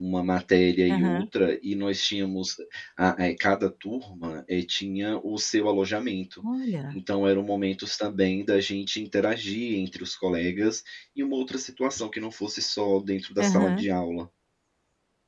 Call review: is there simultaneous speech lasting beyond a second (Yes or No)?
No